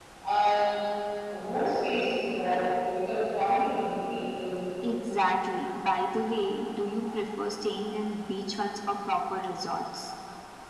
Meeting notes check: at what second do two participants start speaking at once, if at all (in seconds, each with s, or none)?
none